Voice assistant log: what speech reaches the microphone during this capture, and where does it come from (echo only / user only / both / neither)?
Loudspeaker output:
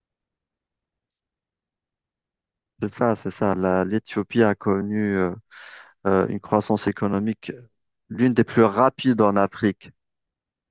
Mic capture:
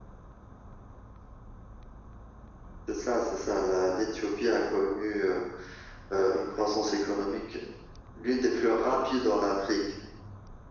echo only